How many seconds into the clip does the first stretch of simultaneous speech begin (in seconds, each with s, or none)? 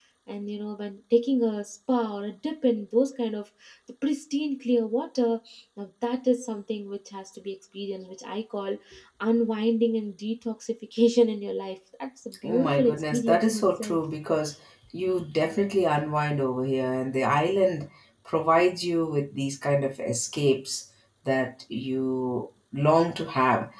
12.4 s